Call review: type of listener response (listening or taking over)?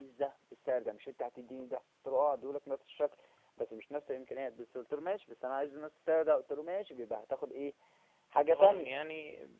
taking over